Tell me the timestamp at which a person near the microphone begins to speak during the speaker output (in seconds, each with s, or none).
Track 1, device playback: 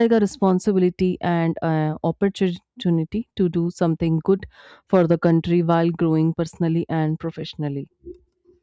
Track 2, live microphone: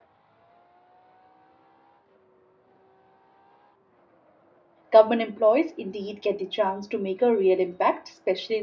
4.9 s